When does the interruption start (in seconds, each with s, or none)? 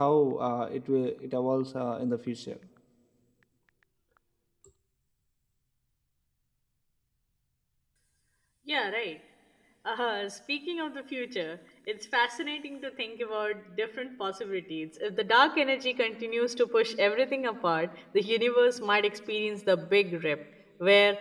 none